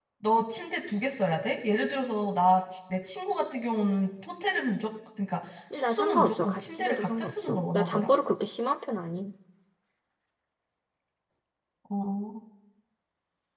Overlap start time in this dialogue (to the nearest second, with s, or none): 6 s